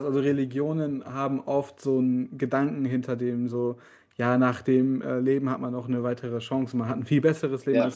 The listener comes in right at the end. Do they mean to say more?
No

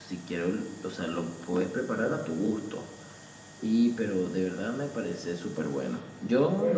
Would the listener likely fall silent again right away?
Yes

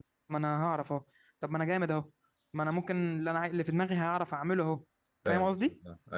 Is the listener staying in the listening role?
No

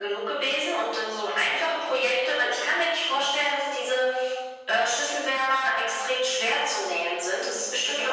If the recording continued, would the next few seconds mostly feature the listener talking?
No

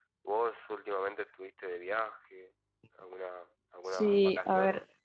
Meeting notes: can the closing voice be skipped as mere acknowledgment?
No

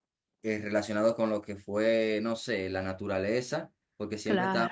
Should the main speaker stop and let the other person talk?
No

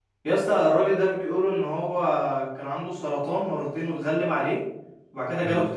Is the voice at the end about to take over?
No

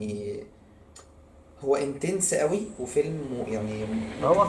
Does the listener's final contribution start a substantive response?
Yes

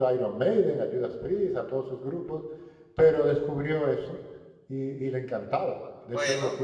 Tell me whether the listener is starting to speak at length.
No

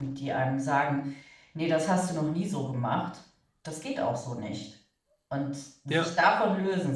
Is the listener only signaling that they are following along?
Yes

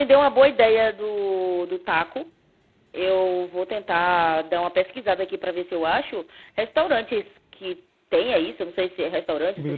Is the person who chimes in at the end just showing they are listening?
Yes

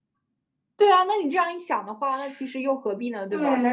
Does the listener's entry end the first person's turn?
Yes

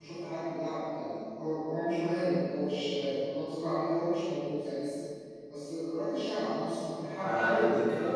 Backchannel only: No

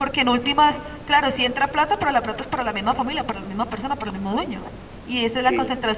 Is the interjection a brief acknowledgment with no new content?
Yes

